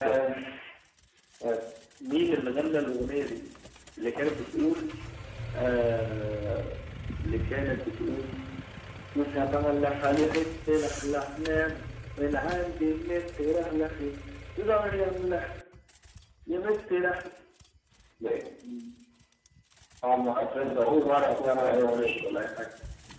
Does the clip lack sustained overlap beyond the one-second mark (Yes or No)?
No